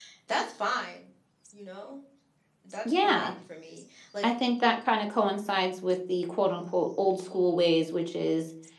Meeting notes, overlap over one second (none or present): none